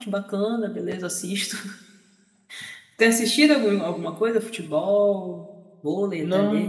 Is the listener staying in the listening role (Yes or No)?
No